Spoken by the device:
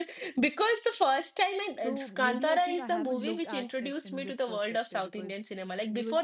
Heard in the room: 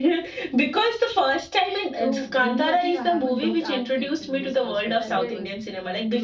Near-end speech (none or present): present